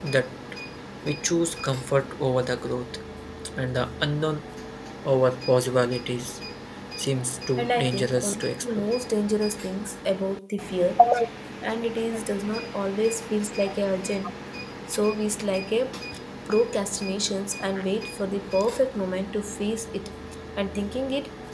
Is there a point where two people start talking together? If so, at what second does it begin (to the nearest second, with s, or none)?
8 s